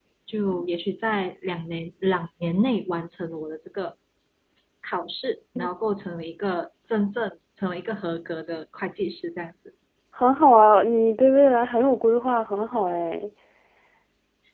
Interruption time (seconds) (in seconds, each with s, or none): none